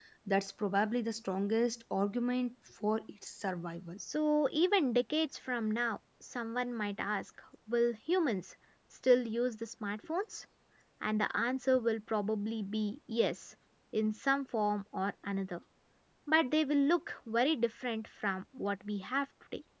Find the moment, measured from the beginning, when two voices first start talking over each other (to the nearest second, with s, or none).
none